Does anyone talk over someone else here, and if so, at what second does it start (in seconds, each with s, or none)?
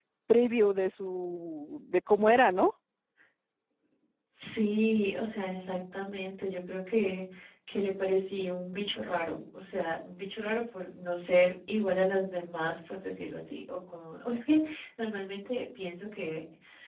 none